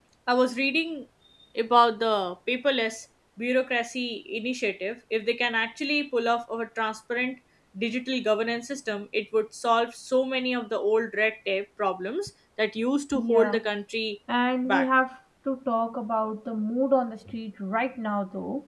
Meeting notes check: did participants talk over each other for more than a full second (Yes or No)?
No